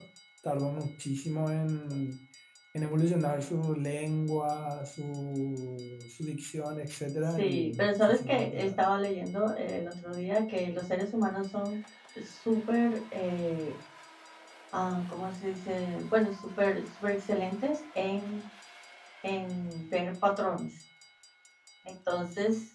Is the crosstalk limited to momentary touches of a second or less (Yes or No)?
No